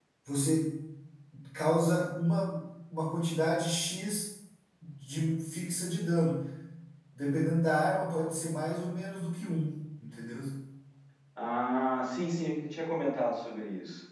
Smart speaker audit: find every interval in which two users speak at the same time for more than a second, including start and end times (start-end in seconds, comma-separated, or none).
none